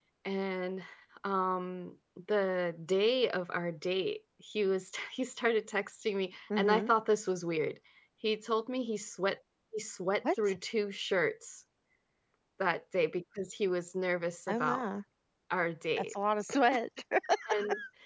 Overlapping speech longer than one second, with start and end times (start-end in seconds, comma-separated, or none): none